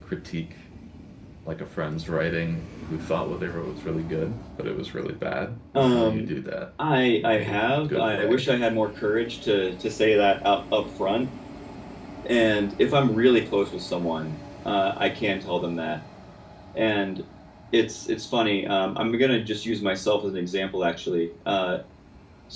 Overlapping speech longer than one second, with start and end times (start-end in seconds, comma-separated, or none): 7.2-8.4